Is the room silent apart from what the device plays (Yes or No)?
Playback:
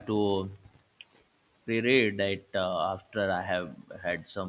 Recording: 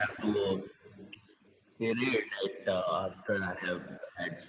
Yes